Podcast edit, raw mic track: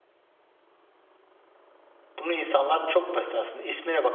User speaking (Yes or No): Yes